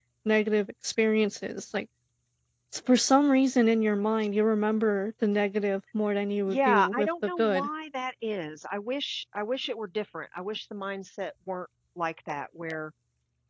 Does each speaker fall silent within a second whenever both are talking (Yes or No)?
No